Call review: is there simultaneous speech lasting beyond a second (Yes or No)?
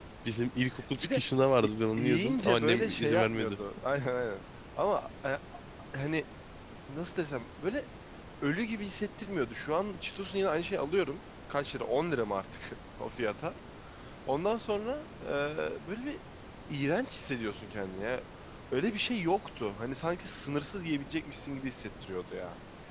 Yes